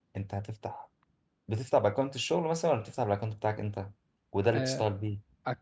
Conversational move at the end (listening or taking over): taking over